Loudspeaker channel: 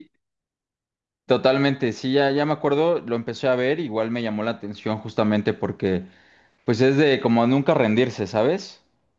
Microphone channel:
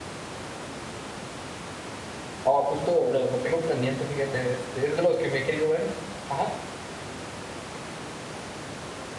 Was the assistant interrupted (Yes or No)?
Yes